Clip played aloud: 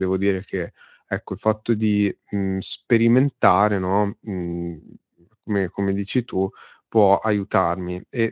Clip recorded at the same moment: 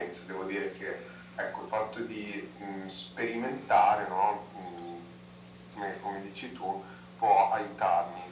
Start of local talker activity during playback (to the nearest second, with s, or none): none